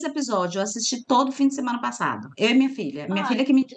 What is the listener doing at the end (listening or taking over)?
taking over